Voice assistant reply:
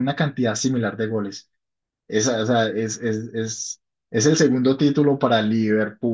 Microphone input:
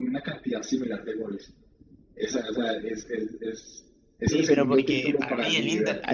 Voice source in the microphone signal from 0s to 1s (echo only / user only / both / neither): echo only